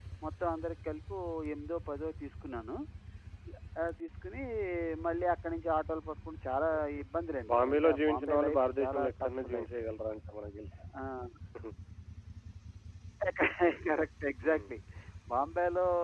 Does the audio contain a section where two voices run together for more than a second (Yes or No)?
Yes